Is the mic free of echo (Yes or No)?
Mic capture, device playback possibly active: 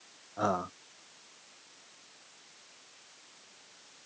Yes